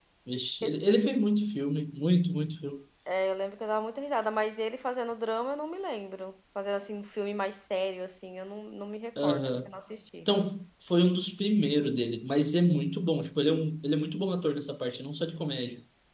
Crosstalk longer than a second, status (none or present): none